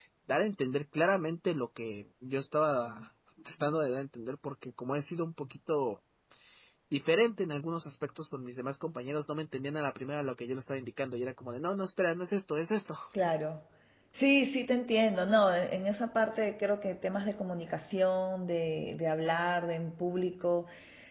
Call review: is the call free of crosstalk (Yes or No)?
Yes